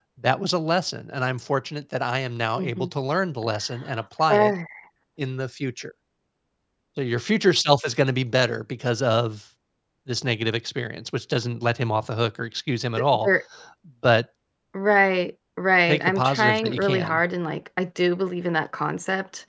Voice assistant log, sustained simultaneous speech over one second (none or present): present